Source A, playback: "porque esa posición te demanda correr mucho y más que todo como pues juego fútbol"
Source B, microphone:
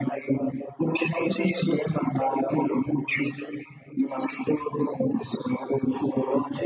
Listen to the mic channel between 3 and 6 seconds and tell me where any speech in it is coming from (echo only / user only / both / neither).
echo only